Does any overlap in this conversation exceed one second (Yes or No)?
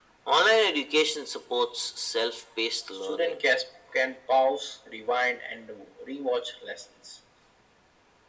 No